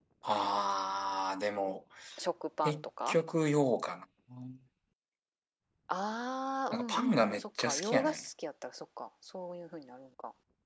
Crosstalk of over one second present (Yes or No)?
Yes